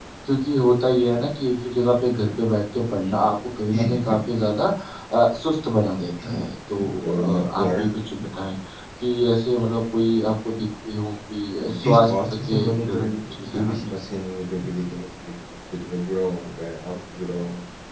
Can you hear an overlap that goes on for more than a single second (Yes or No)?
Yes